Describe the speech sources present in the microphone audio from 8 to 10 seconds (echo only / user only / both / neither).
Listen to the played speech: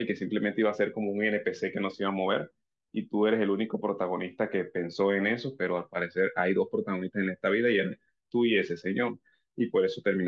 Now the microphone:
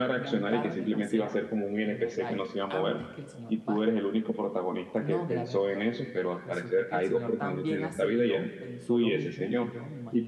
both